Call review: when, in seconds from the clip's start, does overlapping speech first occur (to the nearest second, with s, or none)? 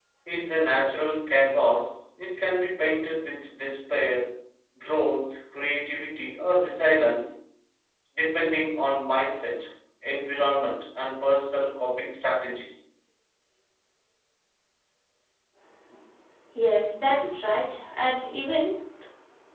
none